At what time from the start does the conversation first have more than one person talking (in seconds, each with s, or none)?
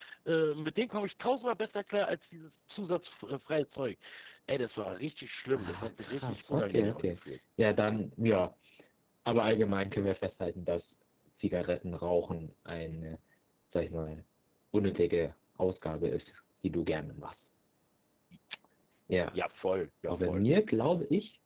5.5 s